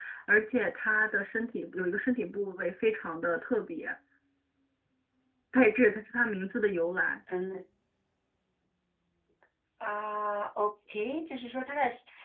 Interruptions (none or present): none